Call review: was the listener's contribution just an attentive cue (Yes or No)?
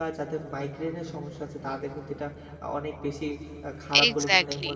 Yes